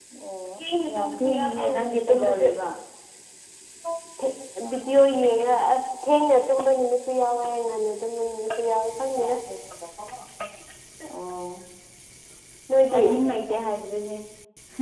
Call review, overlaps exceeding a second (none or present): present